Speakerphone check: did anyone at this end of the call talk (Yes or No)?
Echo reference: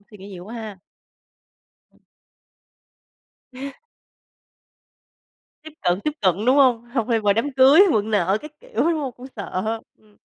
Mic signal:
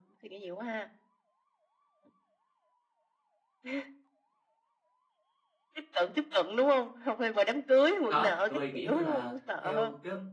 Yes